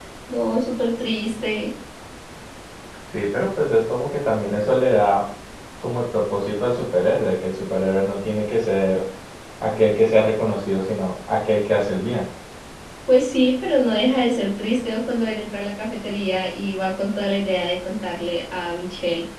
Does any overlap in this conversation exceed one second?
No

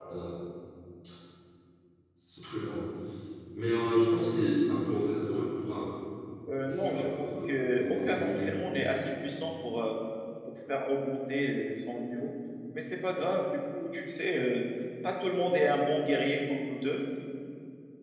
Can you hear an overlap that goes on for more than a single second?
Yes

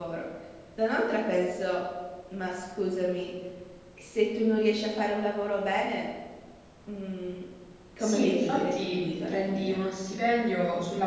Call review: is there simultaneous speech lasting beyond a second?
Yes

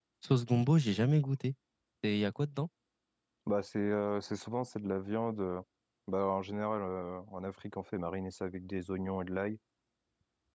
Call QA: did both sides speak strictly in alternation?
Yes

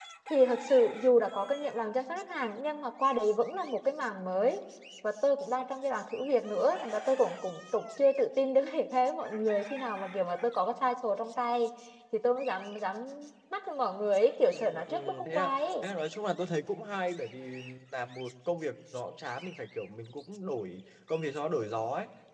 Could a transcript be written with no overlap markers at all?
No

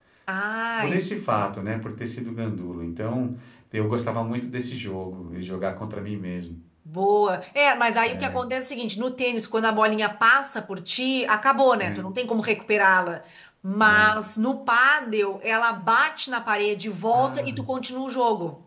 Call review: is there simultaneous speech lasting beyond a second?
No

